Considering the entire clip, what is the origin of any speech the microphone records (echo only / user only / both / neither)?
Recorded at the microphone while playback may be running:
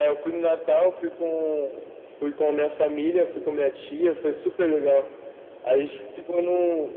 echo only